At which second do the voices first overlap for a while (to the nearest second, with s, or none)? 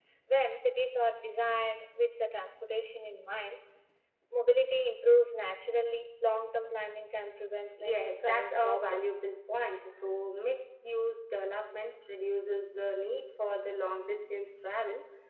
8 s